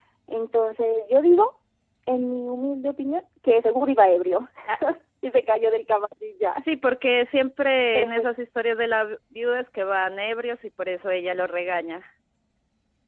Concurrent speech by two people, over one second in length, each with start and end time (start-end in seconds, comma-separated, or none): none